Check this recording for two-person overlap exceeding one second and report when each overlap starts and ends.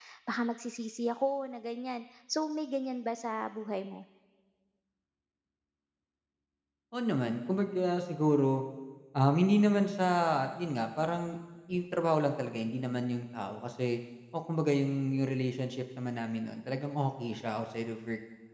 none

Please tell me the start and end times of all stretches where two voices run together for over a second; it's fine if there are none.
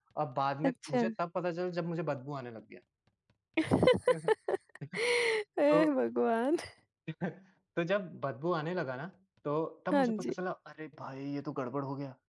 none

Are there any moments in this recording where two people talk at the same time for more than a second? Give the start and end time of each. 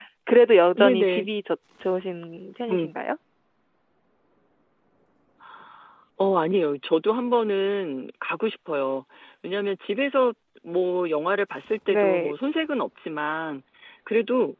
none

